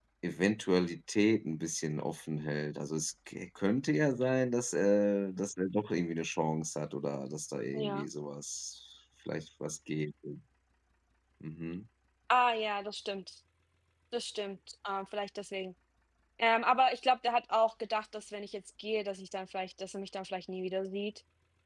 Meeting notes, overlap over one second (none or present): none